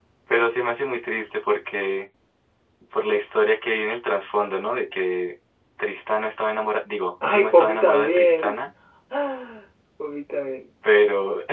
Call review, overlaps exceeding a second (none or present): present